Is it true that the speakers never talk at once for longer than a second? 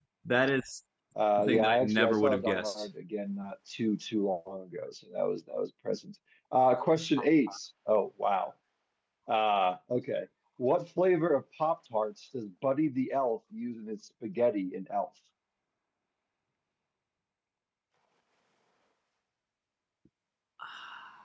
No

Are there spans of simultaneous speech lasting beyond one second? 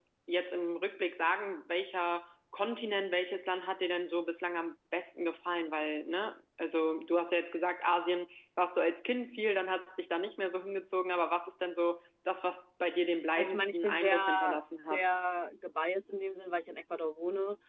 Yes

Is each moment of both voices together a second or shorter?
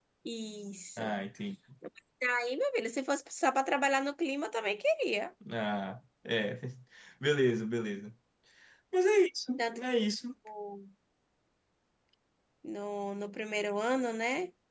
Yes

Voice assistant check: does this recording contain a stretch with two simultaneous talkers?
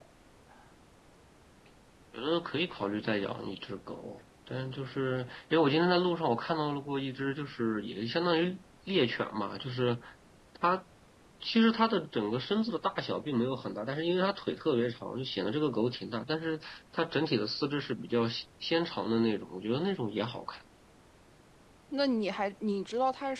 No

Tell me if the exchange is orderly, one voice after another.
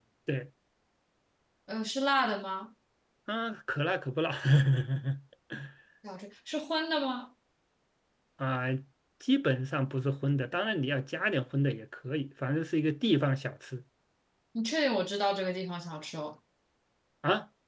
Yes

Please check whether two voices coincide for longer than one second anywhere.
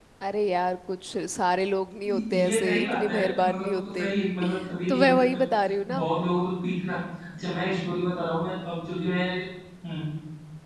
Yes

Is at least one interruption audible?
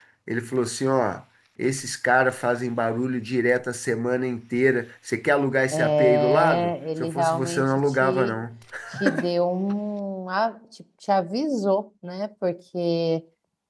Yes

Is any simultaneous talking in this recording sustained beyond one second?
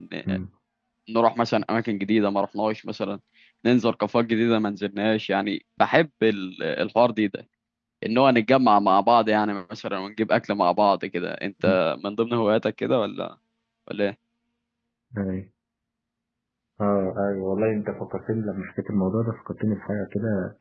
No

